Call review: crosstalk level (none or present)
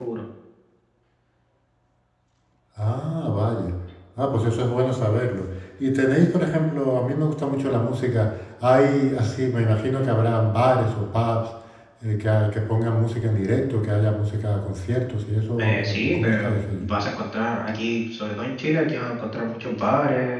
present